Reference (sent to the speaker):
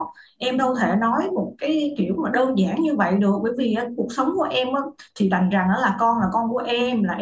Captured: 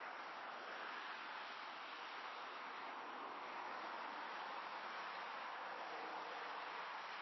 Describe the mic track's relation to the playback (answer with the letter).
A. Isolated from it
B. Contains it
A